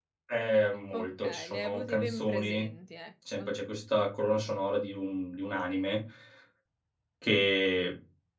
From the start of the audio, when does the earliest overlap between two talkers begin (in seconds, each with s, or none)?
1.0 s